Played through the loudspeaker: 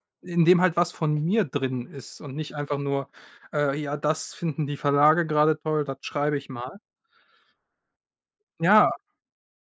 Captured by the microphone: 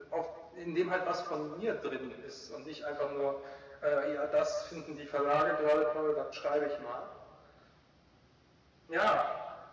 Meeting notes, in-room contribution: none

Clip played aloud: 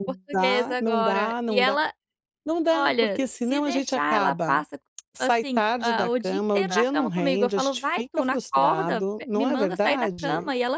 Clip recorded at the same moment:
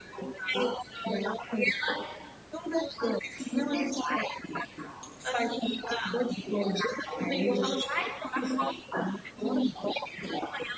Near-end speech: none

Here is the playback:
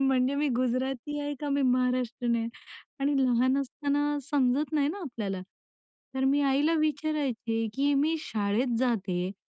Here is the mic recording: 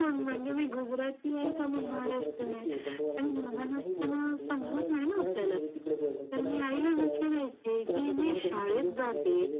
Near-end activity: present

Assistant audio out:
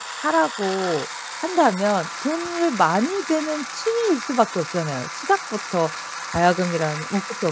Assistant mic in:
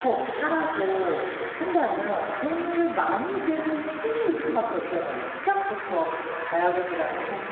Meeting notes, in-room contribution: none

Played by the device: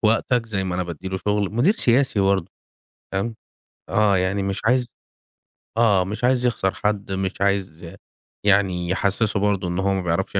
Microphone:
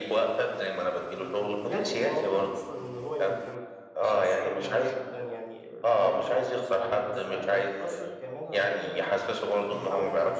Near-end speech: present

